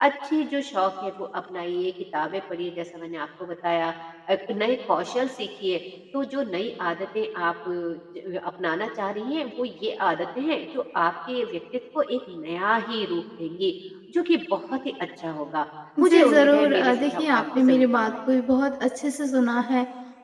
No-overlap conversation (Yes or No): No